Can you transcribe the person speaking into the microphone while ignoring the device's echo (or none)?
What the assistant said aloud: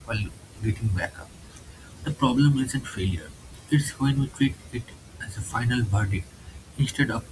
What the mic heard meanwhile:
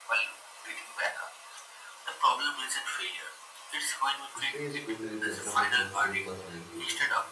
History is filled with examples of great personalities